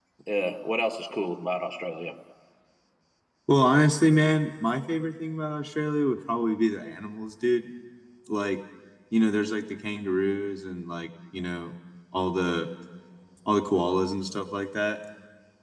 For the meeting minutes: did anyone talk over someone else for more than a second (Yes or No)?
No